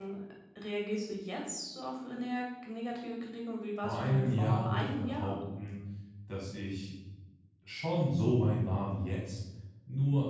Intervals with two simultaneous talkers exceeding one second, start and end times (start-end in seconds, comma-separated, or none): 3.8-5.4